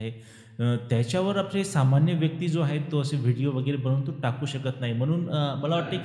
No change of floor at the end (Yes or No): Yes